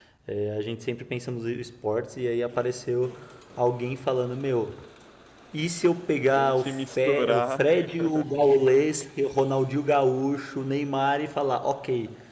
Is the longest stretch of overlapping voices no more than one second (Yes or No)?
No